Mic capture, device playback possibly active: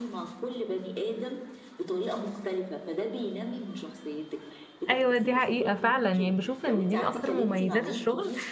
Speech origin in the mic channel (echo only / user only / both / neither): both